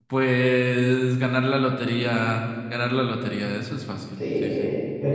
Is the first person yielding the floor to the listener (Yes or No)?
Yes